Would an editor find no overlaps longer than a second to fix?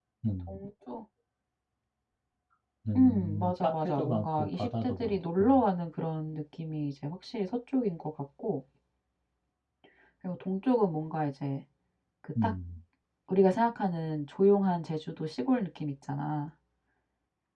No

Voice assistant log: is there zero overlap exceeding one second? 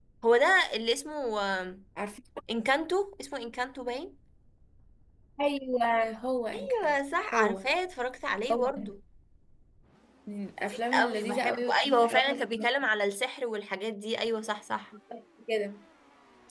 No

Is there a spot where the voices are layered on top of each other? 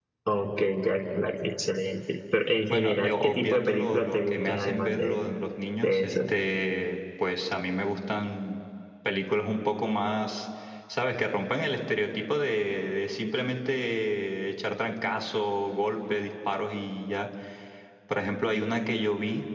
Yes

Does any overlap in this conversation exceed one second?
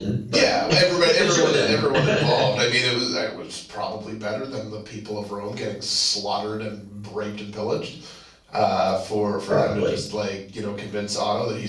Yes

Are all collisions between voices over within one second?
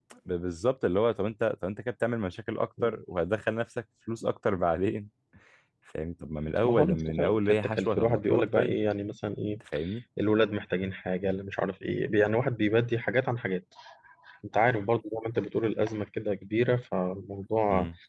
No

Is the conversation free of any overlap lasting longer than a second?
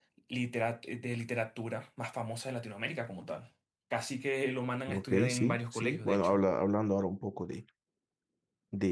No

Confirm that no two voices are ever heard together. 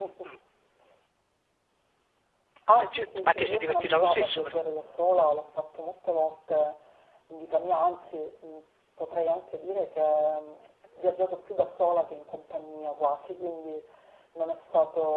No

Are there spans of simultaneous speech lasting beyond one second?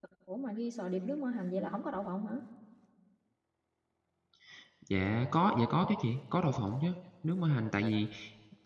No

